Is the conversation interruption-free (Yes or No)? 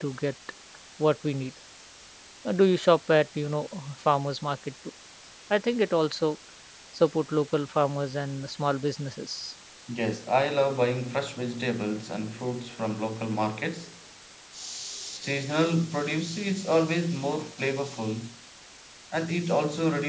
Yes